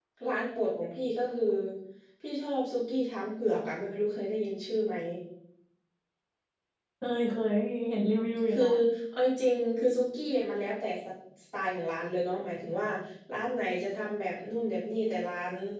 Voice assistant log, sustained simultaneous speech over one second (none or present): none